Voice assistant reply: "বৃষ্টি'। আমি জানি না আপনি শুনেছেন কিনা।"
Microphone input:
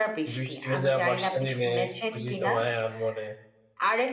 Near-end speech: present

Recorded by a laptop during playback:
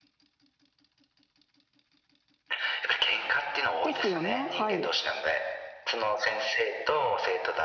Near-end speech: present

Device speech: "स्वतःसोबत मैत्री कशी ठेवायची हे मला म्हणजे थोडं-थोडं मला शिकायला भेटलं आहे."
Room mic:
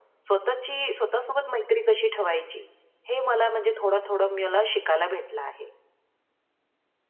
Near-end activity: none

